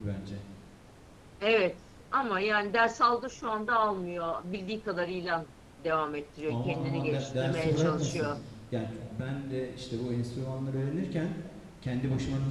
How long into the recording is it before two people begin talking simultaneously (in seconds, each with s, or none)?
6.5 s